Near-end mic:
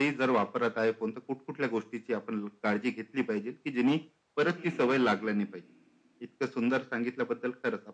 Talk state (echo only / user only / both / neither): both